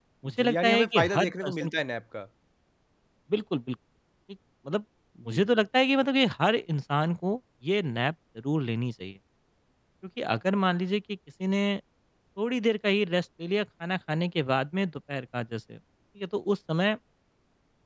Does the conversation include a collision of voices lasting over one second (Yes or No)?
Yes